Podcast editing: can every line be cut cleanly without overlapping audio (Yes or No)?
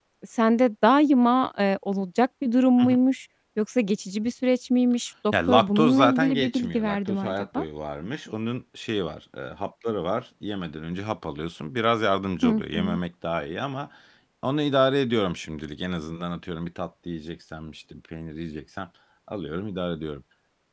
No